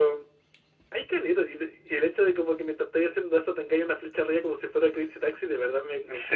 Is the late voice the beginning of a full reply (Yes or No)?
Yes